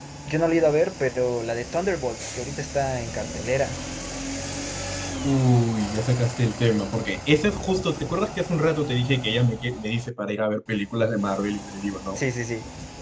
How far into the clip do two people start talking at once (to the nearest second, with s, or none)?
none